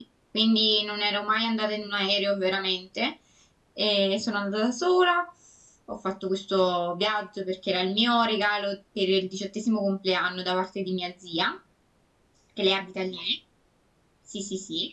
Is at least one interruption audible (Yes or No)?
No